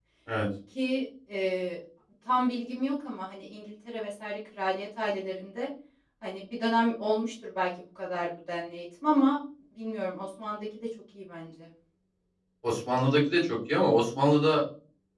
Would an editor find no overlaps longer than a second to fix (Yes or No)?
Yes